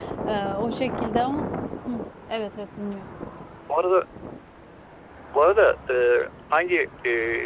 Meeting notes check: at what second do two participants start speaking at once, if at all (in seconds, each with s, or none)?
none